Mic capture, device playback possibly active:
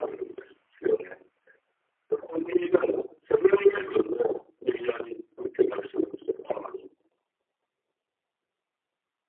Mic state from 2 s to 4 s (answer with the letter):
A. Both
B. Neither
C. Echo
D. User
C